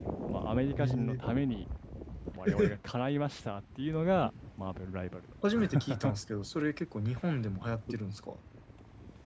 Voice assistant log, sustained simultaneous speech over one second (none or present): none